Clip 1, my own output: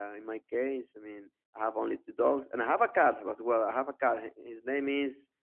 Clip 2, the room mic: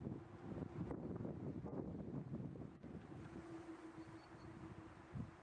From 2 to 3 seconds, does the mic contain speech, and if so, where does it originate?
neither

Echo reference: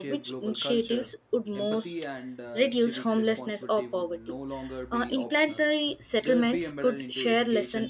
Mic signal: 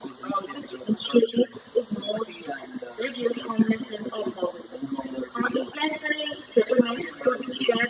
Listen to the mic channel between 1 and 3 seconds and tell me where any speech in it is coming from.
echo only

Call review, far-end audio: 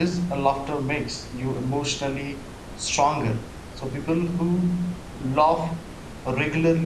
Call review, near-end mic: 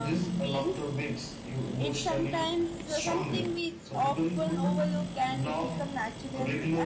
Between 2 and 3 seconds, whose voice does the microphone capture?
both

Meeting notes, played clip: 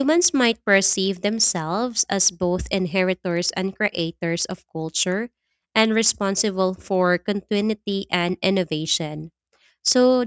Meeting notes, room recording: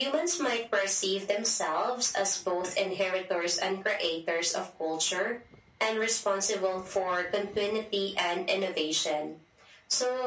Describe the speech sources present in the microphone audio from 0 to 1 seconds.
echo only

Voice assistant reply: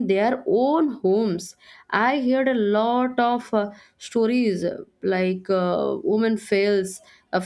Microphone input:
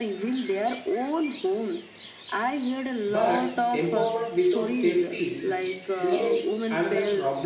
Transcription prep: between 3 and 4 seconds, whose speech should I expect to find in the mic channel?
both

